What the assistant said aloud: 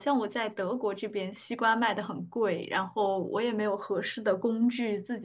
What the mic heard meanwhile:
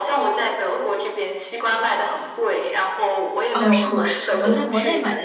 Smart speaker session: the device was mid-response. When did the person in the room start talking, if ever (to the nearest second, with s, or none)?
4 s